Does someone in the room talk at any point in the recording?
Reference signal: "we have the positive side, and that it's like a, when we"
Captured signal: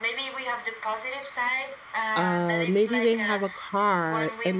Yes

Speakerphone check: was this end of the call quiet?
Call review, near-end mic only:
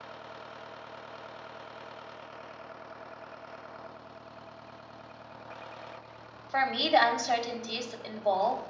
No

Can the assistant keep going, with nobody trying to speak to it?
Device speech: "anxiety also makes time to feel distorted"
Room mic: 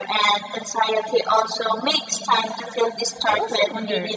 No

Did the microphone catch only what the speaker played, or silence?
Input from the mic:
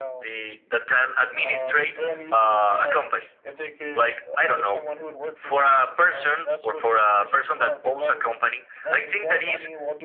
No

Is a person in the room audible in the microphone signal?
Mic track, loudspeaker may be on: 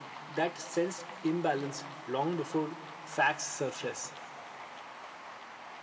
No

